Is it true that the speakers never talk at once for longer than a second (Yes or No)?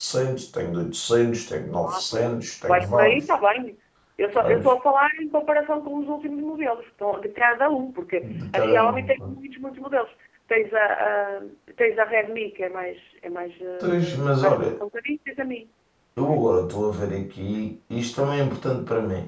No